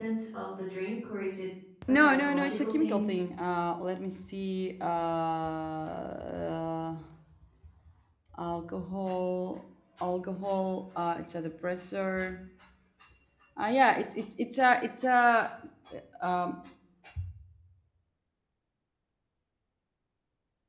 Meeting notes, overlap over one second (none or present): present